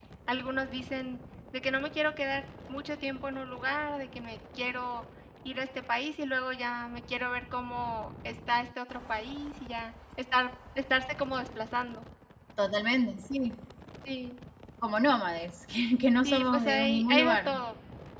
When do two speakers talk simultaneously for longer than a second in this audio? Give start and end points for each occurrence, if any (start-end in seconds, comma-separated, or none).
16.2-17.5